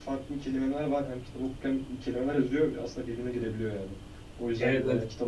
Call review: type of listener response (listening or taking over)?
listening